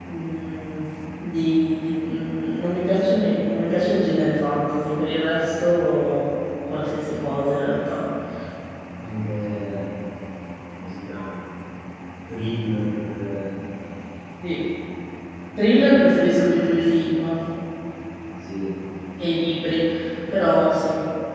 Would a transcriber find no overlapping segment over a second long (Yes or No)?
Yes